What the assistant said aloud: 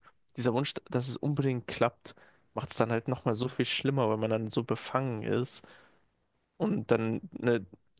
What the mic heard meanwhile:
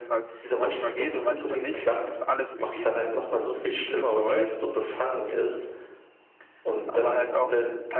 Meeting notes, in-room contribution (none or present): present